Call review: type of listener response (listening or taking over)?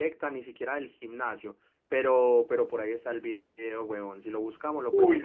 taking over